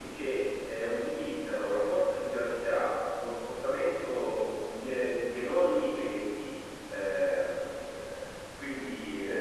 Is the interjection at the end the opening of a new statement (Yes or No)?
No